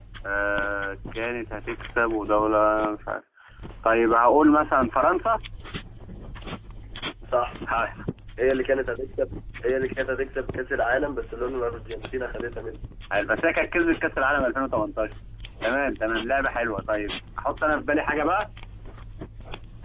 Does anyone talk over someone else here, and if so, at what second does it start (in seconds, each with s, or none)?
none